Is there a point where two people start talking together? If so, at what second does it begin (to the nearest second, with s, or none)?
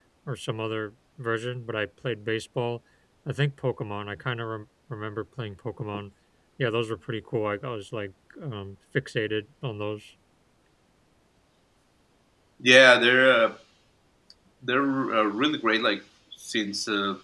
none